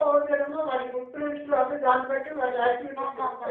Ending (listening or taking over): taking over